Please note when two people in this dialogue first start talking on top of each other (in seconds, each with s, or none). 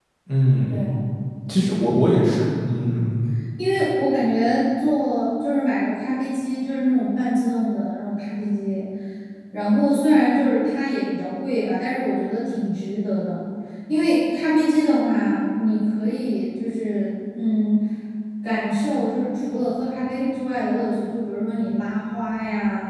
none